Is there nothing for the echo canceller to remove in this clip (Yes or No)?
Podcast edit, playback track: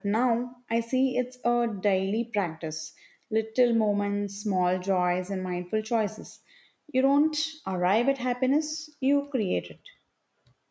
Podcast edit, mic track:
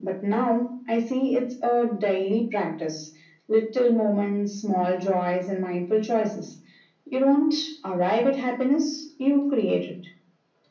No